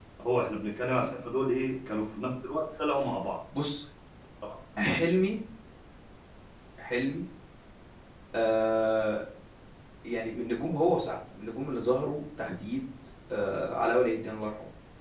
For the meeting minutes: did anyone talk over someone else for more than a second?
No

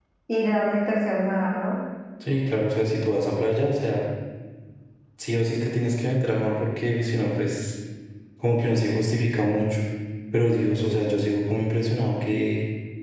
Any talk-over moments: No

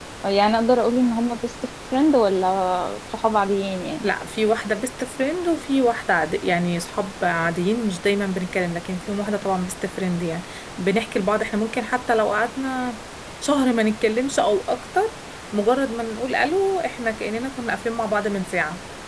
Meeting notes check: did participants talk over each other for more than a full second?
No

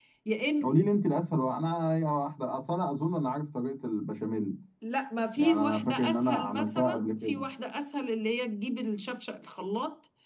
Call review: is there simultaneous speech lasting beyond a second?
Yes, from 5.4 s

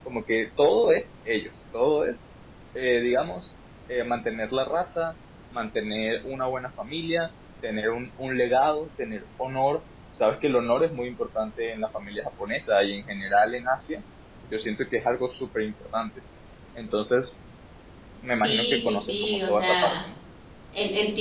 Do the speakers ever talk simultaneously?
Yes, from 18.4 s

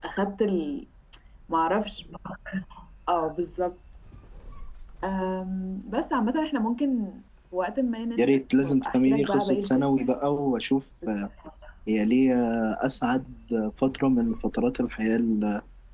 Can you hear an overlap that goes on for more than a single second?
Yes, from 8.2 s

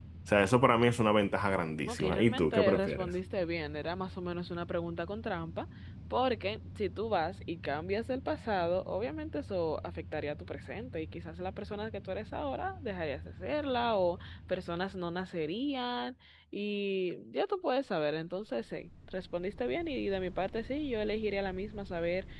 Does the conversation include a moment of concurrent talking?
Yes, from 1.9 s

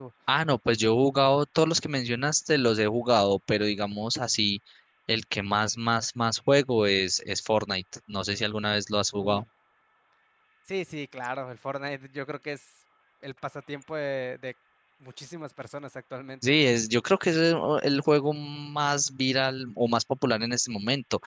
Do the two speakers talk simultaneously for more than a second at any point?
No

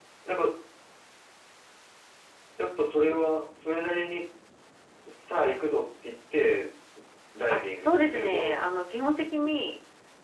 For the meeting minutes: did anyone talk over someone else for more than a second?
Yes, from 7.5 s

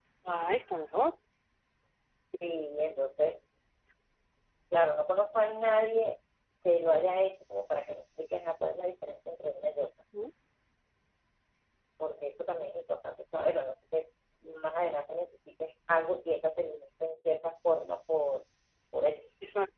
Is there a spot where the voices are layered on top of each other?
No

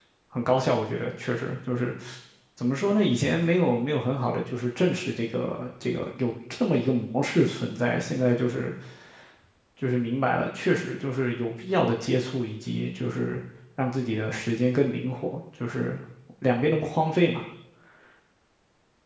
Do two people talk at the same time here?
No

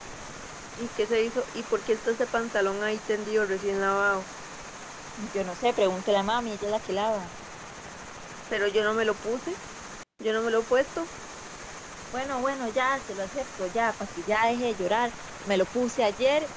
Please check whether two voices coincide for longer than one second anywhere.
No

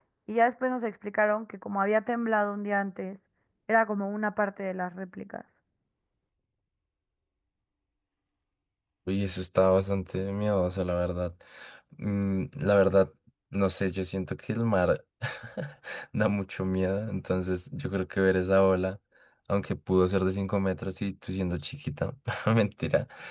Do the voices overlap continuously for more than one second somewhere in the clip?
No

